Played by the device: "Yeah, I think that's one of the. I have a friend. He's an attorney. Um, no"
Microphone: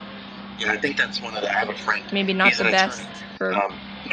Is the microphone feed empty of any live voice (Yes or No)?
No